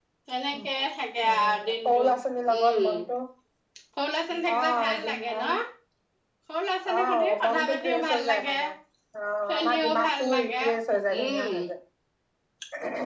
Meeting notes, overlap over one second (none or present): present